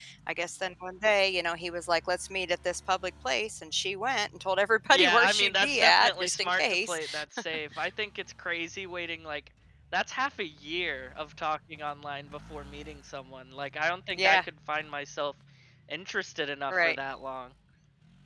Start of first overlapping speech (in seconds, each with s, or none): 4.9 s